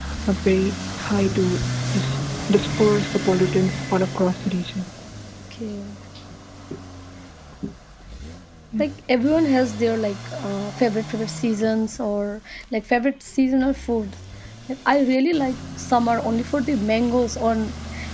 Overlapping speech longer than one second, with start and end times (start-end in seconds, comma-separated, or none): none